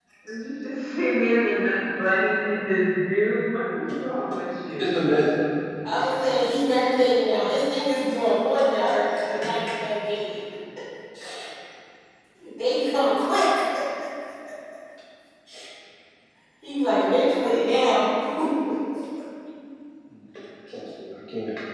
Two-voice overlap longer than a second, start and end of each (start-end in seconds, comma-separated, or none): none